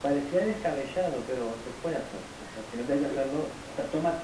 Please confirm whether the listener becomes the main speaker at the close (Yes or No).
No